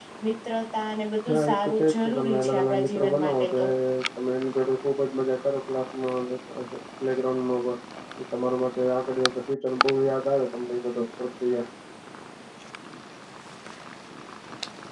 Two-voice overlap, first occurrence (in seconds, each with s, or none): 1.3 s